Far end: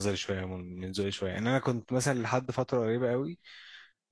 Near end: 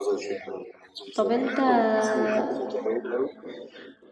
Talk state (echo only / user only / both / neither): both